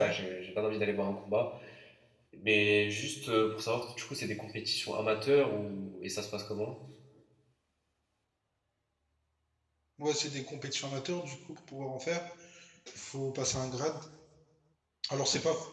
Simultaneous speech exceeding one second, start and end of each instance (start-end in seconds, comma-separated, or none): none